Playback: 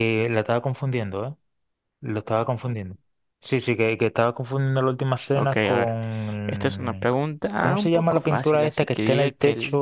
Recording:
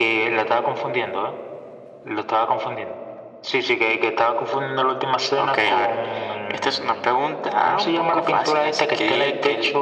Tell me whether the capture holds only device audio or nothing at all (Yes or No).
Yes